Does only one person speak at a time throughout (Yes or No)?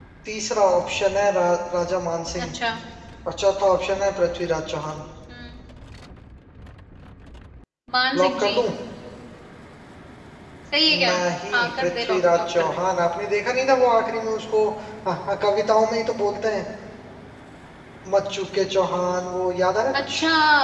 No